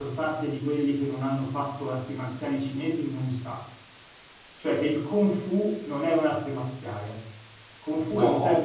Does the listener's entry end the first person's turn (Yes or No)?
No